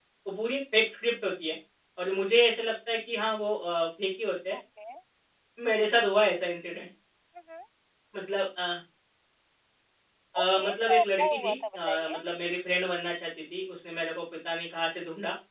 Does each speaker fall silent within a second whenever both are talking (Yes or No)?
No